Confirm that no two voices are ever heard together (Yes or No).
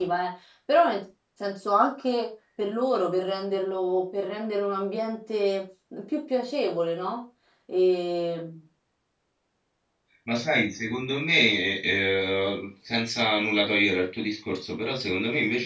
Yes